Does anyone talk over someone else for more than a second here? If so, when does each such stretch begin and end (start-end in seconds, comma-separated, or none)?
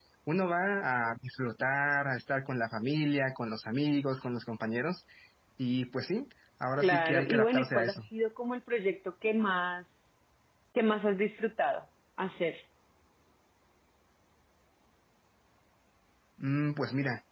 6.8-8.0